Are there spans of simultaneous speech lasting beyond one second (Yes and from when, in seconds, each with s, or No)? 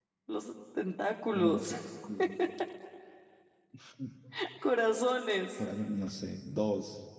No